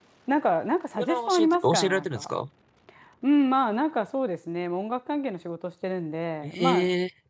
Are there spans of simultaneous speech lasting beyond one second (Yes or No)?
Yes